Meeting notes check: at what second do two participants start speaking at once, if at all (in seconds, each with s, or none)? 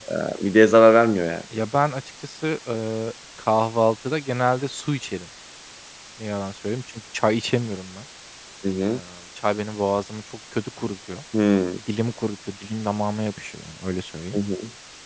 none